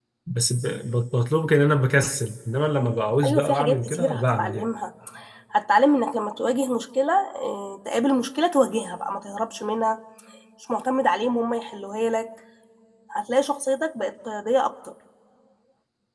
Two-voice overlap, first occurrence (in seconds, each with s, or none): 3.2 s